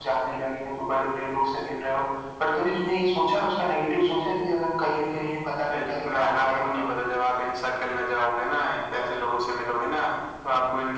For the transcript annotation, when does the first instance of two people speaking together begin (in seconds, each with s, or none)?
5.6 s